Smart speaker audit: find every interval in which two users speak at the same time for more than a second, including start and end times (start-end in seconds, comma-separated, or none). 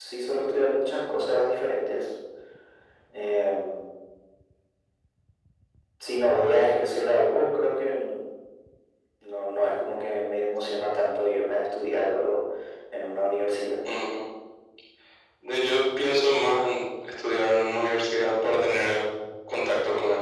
none